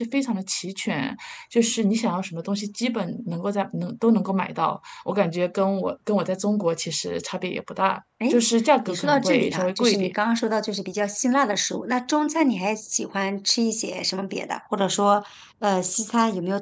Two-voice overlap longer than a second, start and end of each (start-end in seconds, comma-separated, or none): 8.9-10.1